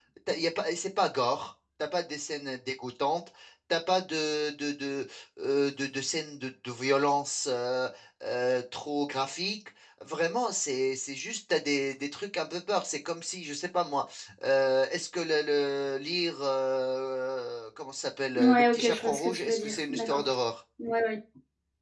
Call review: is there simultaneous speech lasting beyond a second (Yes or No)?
Yes